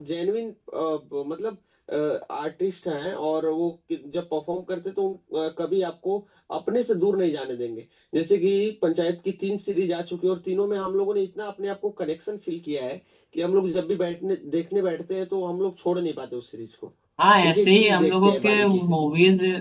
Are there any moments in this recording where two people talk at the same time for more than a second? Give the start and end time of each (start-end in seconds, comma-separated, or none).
17.5-18.9